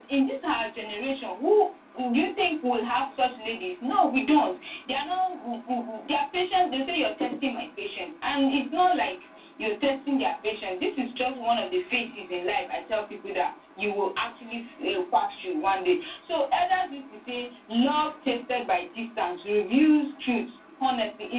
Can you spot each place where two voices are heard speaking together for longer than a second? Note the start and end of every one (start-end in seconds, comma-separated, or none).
none